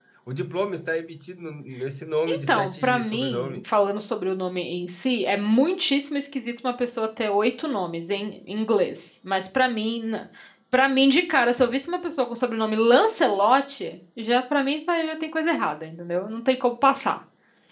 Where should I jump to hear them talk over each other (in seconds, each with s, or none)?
2.3 s